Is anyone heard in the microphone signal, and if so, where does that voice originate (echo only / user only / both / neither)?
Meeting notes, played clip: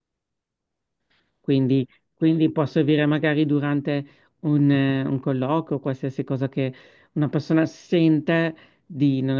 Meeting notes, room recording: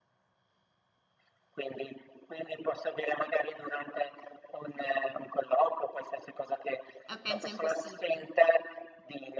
both